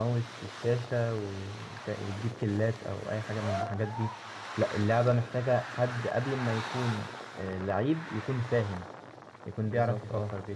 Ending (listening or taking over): listening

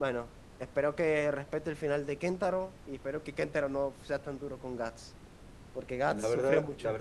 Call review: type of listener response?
taking over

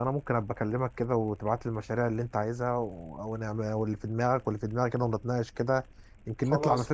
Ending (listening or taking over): taking over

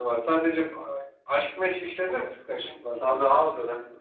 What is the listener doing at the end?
taking over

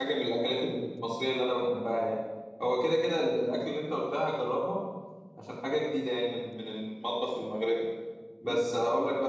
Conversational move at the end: listening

